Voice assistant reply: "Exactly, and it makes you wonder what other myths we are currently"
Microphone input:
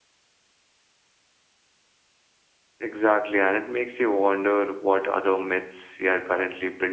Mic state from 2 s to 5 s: echo only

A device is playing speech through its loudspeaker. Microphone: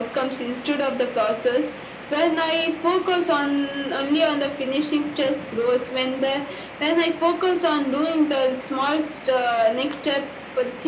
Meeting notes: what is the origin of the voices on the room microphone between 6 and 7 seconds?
echo only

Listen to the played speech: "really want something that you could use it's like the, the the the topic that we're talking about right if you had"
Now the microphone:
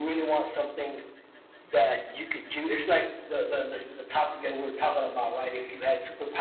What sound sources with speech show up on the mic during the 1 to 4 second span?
echo only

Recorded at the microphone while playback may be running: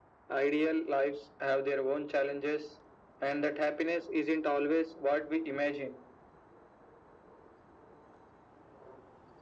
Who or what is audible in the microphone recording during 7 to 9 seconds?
neither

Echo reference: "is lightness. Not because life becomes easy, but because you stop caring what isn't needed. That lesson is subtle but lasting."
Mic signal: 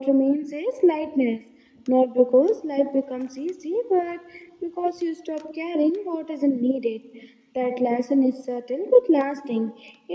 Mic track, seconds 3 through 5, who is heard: echo only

